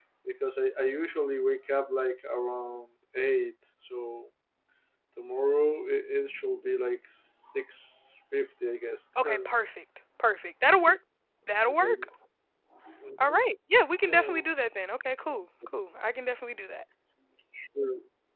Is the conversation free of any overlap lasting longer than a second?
Yes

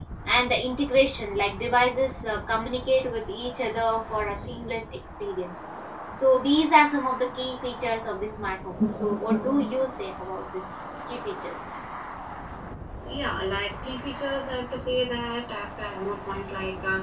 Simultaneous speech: No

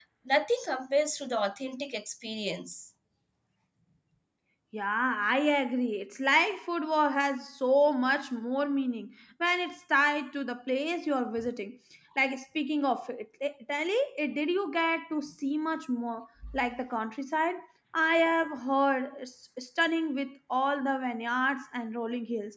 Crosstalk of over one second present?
No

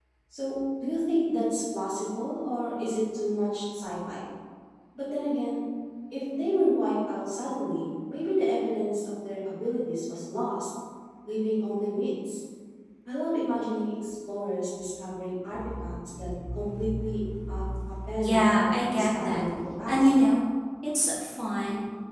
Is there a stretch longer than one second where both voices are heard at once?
Yes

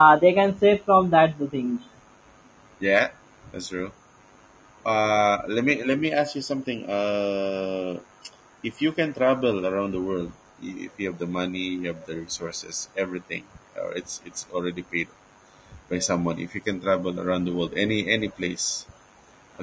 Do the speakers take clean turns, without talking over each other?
Yes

